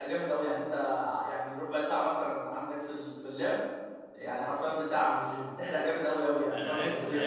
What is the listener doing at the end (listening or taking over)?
taking over